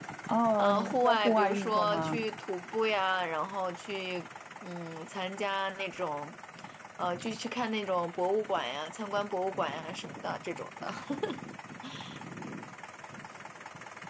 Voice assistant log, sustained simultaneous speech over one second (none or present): present